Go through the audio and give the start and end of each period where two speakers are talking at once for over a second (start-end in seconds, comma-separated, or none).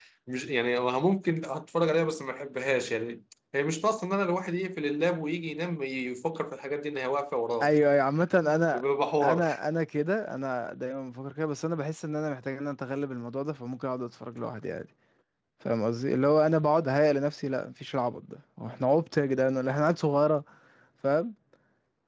none